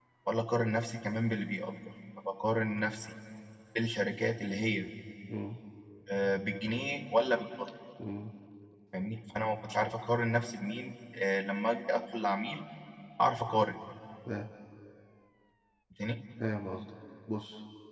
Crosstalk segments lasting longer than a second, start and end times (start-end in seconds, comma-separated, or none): none